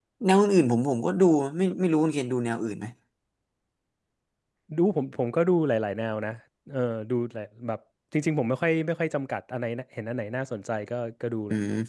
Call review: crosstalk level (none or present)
none